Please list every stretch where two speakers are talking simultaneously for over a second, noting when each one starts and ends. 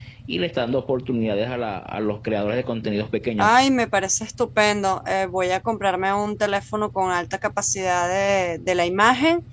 none

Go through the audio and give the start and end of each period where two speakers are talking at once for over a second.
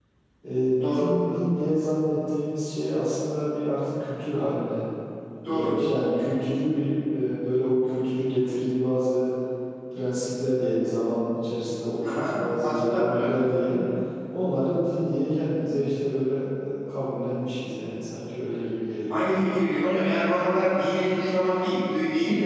12.0-13.7

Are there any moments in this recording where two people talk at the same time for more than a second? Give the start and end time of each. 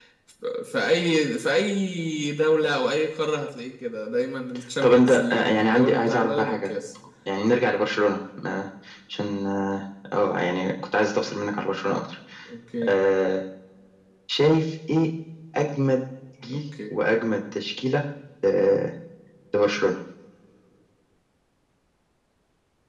4.8-6.7

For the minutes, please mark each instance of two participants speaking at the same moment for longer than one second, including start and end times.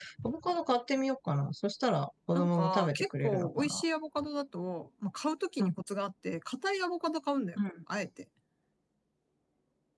2.3-3.8

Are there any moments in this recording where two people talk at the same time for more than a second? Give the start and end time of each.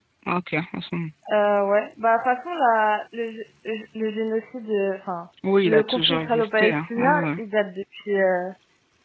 5.6-7.4

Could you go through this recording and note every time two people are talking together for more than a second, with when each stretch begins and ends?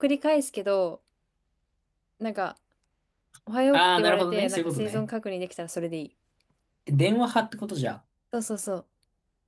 3.7-5.1

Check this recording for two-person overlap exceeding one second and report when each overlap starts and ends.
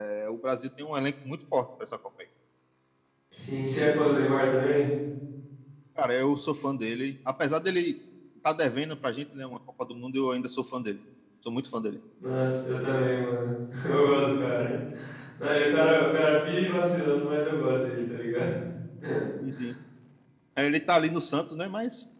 none

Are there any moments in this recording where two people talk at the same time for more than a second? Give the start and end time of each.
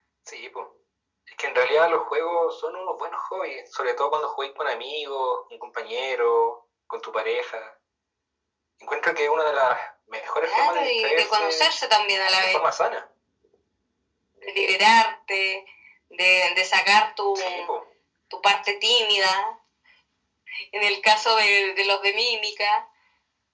10.4-11.6

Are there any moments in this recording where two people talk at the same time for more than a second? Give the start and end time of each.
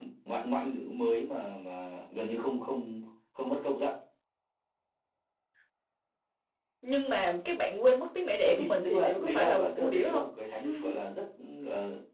8.4-10.2

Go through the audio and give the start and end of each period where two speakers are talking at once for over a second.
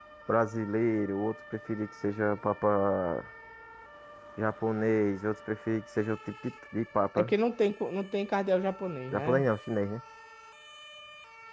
none

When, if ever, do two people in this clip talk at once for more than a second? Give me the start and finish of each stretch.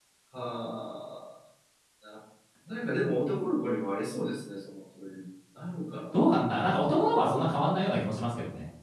none

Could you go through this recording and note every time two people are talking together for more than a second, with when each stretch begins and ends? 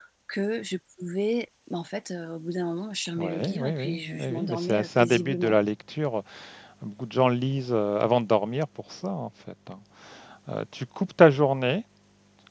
3.2-5.6

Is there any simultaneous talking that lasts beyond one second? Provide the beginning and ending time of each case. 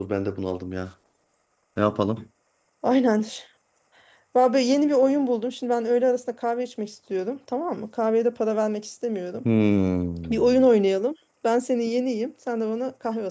none

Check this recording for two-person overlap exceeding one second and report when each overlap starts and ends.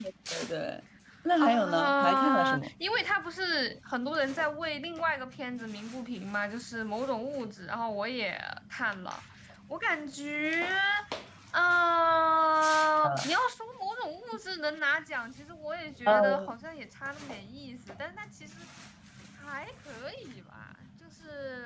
1.4-2.7

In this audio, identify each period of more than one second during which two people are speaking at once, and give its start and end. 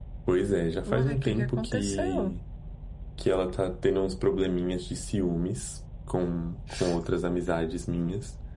0.8-2.4

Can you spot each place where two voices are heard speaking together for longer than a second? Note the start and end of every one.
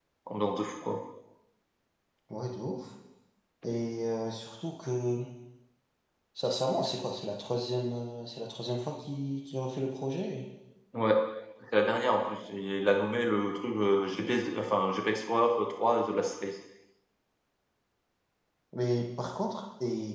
none

